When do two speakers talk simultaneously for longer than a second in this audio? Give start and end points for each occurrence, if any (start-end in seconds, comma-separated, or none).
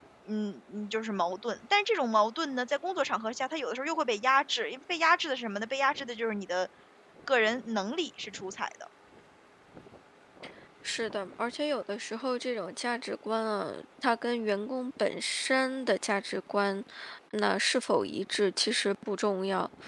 none